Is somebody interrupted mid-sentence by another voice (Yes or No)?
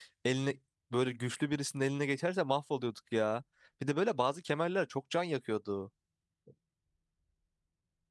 No